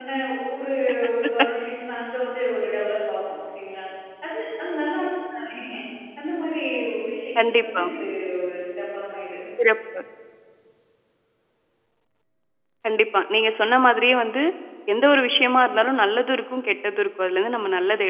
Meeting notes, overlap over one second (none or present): none